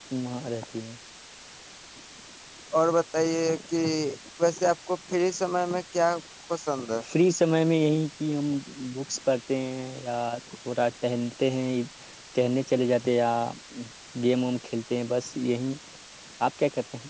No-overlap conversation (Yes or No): Yes